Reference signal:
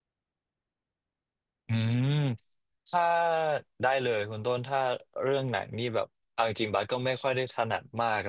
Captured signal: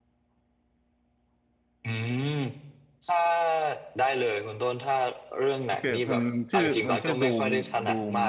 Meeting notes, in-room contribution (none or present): present